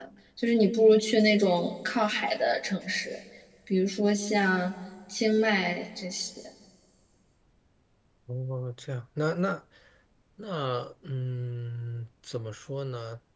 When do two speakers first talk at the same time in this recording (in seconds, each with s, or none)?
none